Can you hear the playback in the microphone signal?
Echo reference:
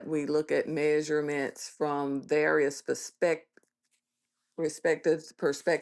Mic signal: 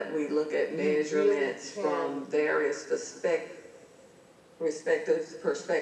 Yes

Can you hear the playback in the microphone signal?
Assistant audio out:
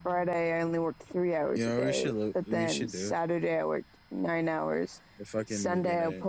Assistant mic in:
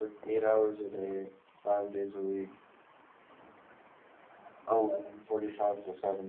No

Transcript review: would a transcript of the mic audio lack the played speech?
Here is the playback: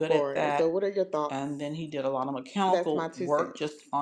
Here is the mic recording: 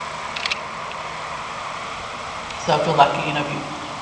Yes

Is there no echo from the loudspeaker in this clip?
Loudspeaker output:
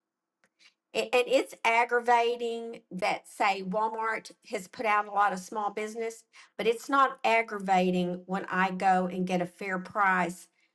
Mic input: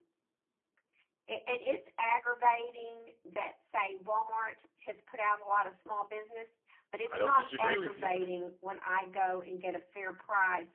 No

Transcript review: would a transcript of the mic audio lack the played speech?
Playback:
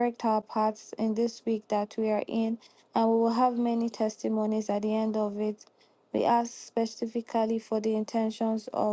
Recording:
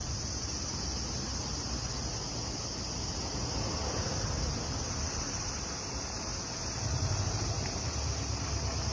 Yes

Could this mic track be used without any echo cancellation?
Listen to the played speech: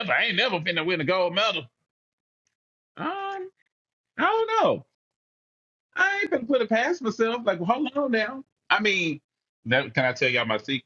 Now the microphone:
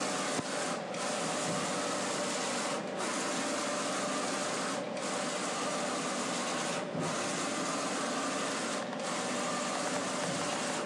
Yes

